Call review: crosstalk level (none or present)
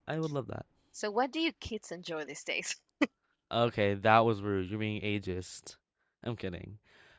none